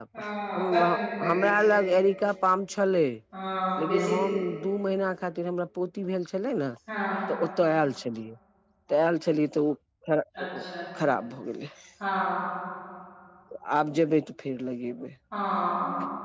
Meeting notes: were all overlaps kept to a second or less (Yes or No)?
Yes